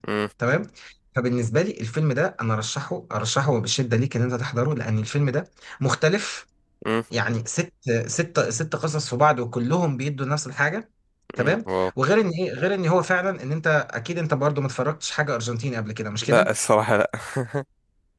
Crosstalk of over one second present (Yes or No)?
No